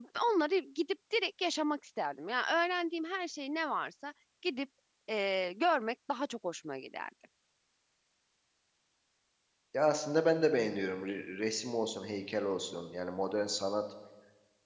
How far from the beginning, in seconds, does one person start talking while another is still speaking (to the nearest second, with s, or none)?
none